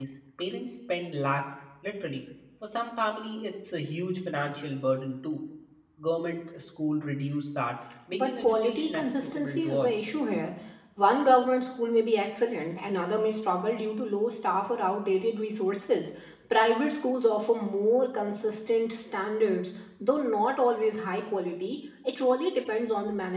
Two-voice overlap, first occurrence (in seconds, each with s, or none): 8.1 s